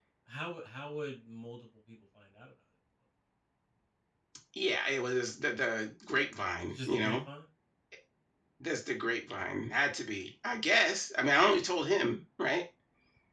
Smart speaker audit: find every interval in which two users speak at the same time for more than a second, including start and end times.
none

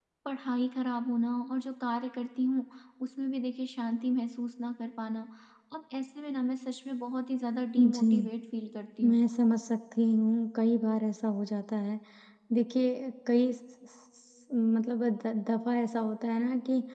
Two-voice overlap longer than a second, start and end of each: none

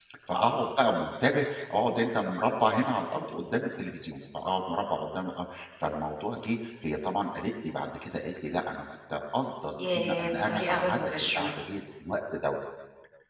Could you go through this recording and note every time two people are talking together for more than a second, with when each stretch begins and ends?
9.8-11.5

